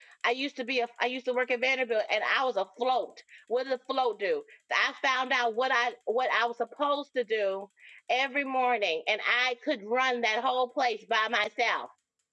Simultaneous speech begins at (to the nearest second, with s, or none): none